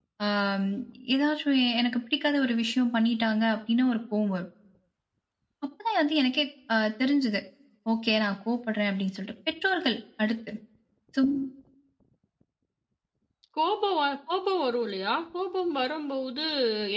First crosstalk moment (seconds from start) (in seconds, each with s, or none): none